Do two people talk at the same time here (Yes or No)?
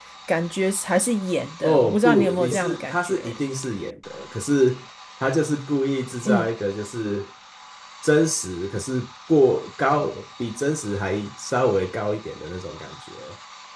Yes